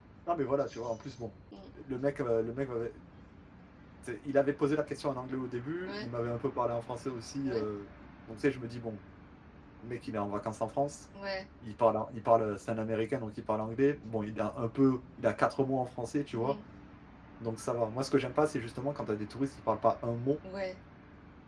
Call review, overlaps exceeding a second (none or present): none